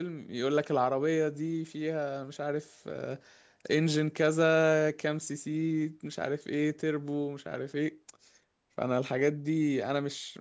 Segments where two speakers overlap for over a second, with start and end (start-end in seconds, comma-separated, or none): none